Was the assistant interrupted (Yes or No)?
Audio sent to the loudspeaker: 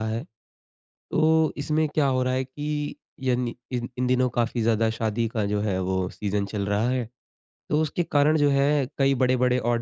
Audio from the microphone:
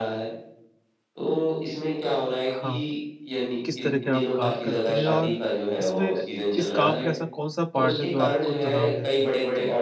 Yes